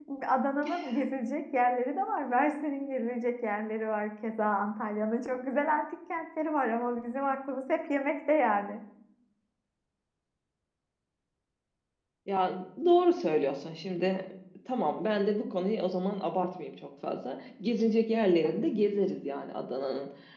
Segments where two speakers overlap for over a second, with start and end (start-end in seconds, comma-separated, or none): none